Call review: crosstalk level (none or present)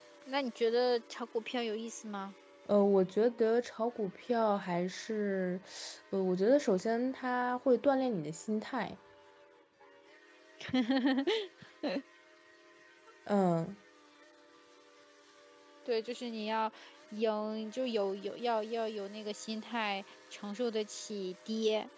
none